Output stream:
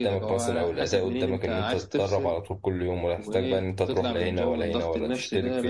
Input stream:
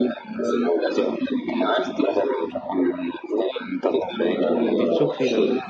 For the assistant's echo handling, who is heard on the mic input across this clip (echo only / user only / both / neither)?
both